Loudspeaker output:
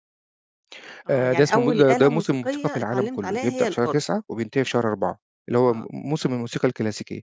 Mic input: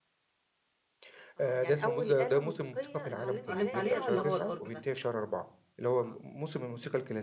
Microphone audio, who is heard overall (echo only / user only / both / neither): both